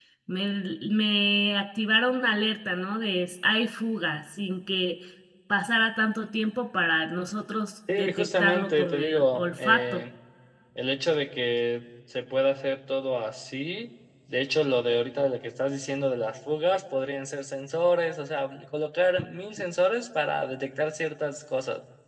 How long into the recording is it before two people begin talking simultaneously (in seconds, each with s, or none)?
7.9 s